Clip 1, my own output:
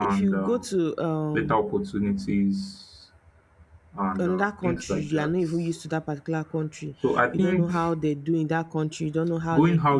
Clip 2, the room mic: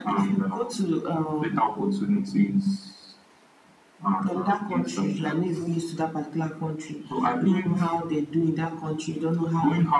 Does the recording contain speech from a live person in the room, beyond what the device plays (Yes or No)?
No